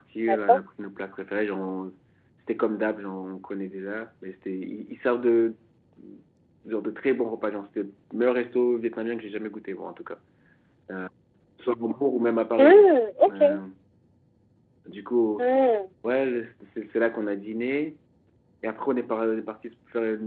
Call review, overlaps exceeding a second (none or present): none